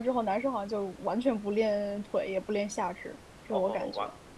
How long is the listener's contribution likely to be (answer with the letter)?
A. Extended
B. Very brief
A